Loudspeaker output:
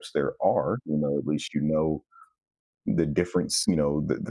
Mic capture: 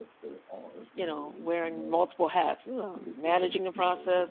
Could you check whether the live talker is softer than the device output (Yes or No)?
No